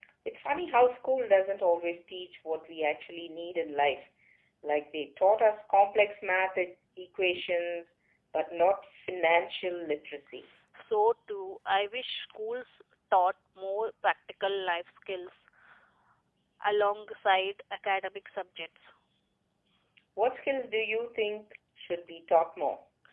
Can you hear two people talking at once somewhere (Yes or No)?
No